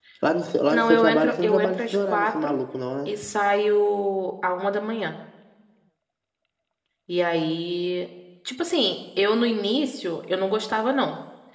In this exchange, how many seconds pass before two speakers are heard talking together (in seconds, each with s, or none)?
0.7 s